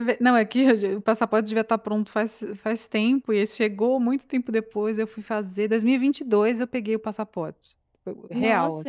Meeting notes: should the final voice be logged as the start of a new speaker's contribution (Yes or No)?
Yes